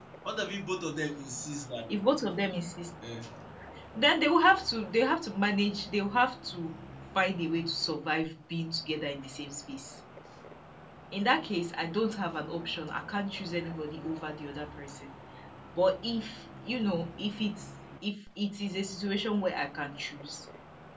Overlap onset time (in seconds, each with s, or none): none